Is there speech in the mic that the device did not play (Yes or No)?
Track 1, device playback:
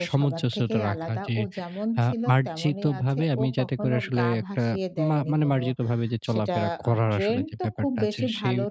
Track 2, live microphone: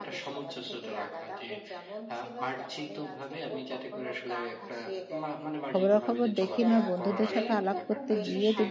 Yes